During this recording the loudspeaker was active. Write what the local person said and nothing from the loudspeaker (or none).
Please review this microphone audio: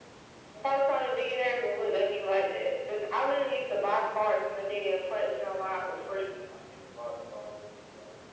none